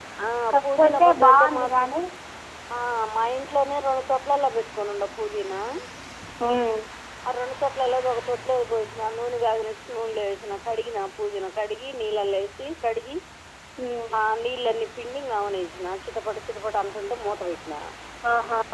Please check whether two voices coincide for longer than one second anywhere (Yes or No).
Yes